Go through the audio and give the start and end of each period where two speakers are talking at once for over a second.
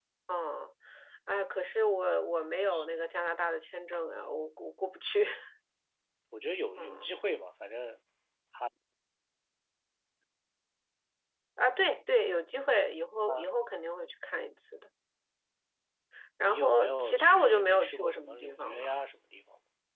16.5-18.9

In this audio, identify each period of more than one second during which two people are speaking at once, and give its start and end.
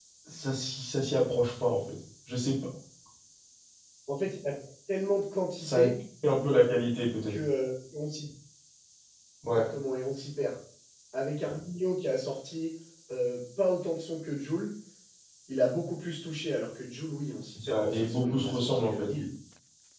17.6-19.1

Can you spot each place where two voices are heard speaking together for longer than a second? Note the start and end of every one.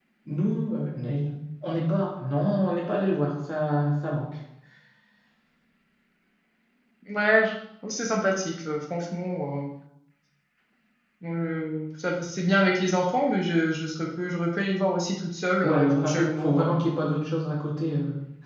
15.6-16.8

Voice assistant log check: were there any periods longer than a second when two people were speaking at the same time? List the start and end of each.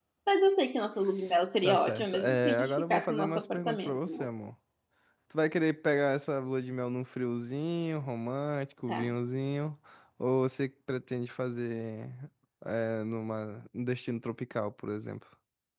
1.6-4.3

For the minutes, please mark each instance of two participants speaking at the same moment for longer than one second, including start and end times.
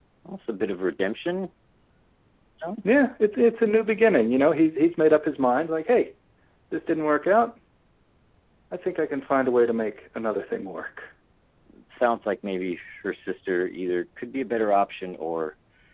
none

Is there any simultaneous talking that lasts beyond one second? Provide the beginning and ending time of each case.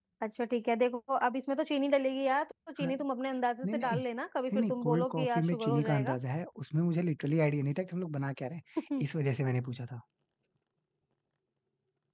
4.5-6.2

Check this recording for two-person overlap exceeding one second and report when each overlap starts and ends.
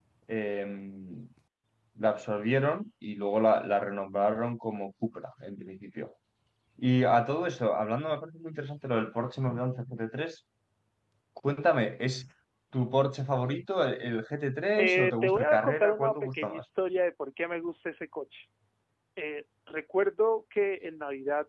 14.8-16.6

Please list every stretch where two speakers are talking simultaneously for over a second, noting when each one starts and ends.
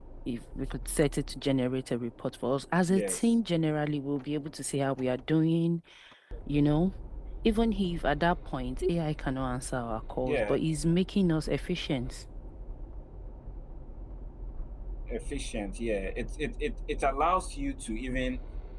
none

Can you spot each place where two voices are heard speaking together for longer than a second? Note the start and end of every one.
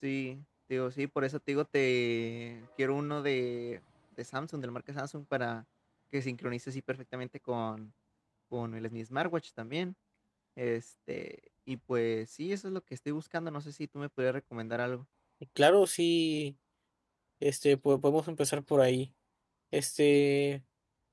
none

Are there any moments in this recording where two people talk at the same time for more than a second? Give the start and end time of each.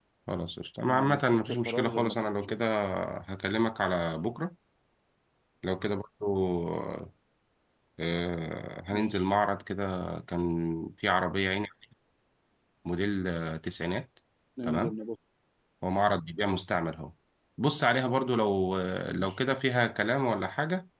0.9-2.6

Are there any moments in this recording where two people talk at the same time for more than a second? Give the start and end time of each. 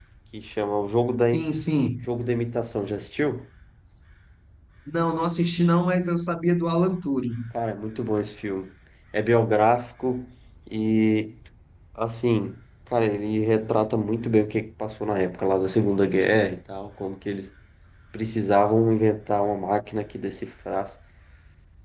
none

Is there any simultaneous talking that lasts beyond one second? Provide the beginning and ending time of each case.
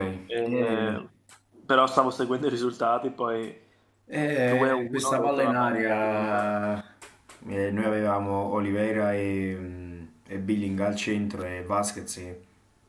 4.4-6.5

